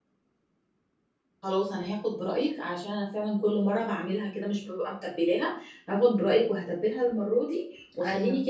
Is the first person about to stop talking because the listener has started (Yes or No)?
No